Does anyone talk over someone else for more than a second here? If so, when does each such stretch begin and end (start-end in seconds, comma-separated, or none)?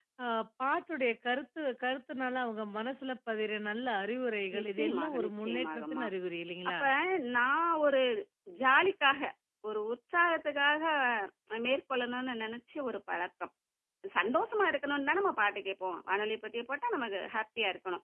4.6-6.0